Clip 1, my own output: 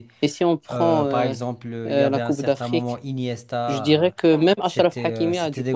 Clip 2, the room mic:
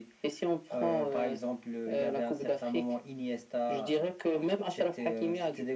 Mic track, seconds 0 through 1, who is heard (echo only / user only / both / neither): echo only